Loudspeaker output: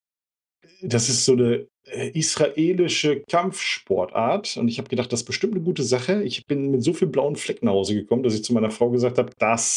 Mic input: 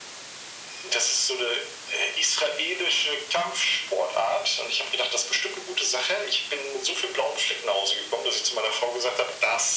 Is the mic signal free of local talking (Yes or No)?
Yes